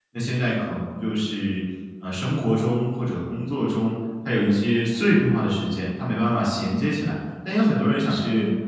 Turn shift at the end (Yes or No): No